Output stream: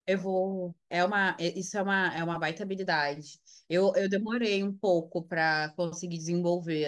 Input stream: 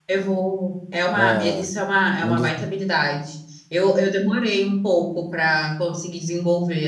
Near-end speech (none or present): present